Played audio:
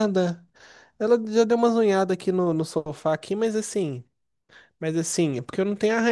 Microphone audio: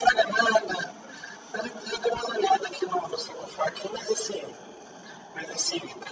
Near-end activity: none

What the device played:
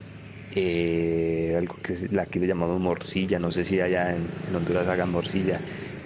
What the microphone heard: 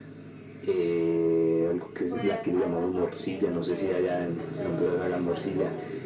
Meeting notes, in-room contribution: present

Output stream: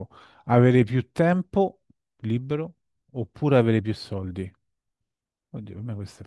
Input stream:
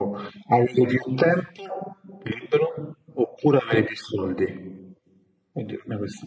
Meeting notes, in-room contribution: none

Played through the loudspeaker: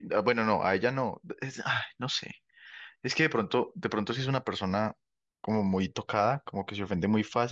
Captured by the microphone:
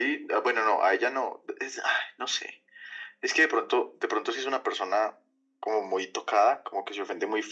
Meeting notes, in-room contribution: none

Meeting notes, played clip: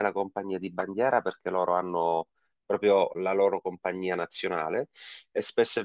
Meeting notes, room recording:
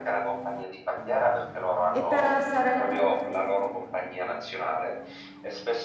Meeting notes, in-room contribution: present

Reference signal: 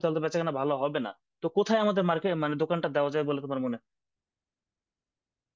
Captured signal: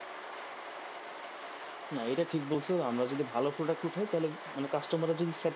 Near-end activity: present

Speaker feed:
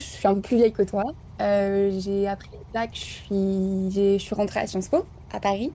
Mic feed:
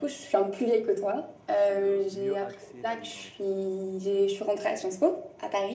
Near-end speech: present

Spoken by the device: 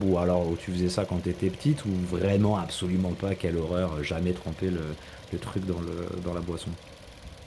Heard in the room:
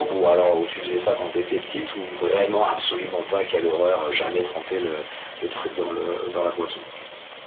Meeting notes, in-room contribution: none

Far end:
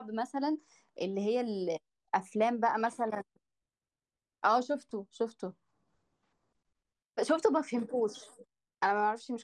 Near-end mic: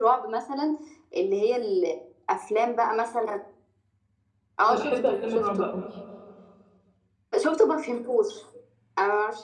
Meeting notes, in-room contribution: present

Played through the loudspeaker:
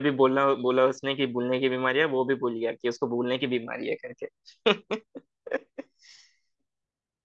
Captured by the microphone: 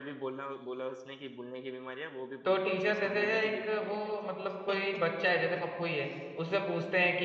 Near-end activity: present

